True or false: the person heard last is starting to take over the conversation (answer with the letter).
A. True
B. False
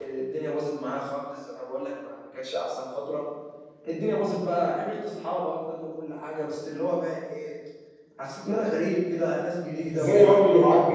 A